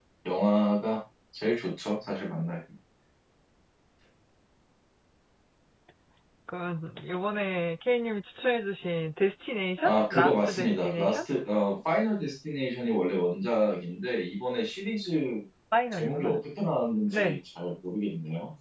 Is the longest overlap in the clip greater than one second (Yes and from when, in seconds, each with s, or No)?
Yes, from 9.8 s